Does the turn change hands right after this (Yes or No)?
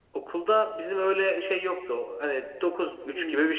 No